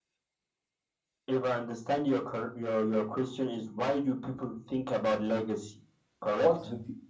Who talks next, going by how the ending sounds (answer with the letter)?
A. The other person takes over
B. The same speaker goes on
A